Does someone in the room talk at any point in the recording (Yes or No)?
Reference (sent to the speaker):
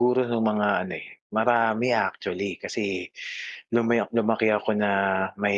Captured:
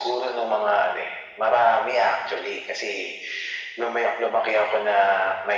No